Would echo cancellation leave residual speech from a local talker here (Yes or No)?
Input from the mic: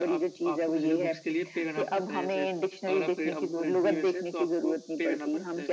Yes